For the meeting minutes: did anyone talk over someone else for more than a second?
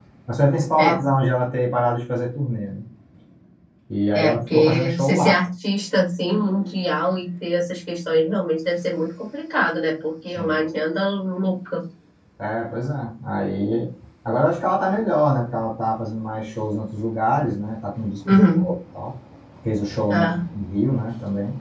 Yes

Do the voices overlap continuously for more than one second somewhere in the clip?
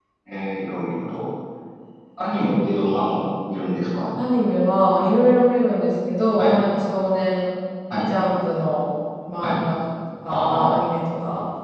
No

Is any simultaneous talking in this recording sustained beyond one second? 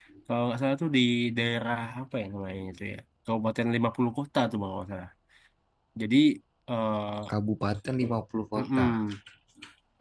No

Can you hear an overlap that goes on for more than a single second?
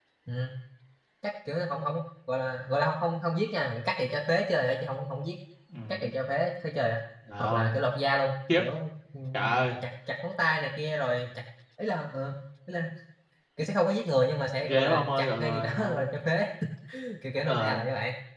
Yes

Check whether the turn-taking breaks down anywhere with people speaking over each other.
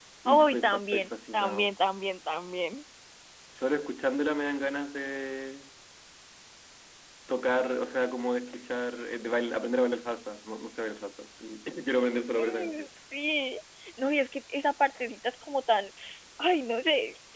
Yes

